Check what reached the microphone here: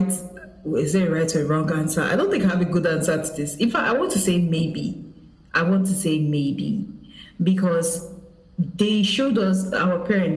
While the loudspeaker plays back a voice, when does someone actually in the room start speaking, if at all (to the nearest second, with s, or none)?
none